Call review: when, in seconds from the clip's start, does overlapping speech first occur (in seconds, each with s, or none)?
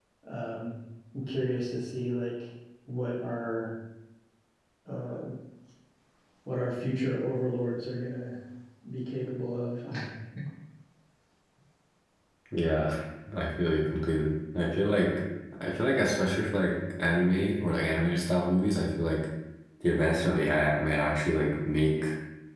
none